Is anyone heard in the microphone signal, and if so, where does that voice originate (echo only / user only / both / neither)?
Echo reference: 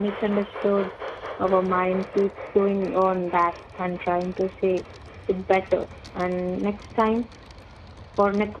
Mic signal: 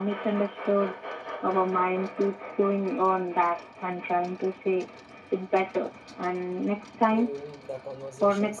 both